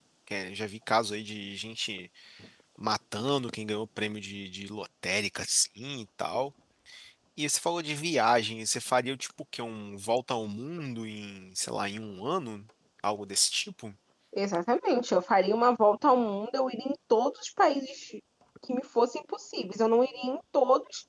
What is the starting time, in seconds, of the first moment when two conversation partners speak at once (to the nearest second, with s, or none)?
none